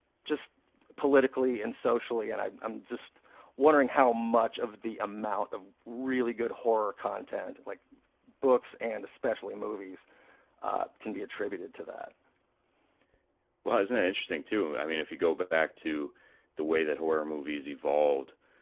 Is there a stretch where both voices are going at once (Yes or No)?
No